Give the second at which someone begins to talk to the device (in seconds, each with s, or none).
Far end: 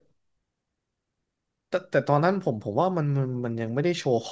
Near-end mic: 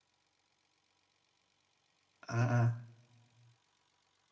2.0 s